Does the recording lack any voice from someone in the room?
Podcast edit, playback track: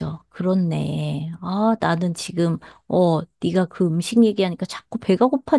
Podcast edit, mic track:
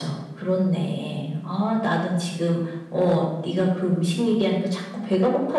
Yes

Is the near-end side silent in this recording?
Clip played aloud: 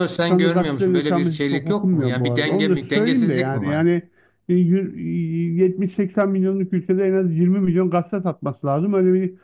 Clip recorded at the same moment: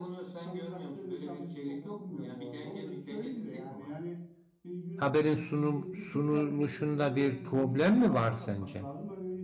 No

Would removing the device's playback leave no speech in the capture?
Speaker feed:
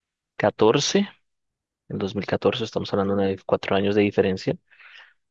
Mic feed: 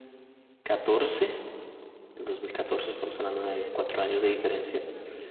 No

